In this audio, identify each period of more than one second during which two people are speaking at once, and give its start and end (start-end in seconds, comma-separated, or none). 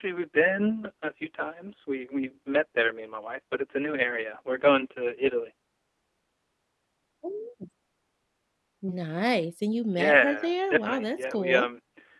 9.9-11.7